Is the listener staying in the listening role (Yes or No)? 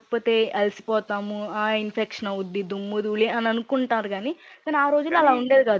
Yes